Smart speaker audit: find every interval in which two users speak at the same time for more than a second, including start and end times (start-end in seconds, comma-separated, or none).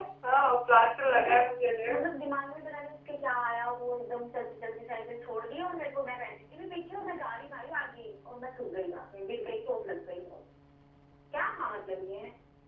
none